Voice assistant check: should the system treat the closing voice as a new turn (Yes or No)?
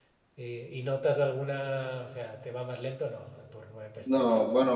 Yes